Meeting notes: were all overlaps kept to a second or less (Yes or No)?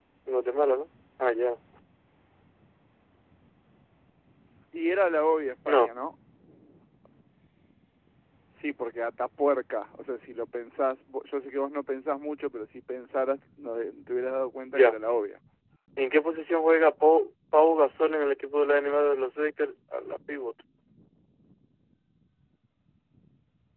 Yes